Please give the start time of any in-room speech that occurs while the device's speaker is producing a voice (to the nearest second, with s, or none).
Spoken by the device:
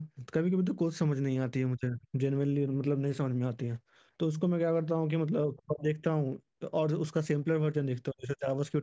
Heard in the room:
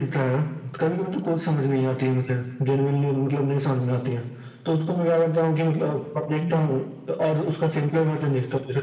6 s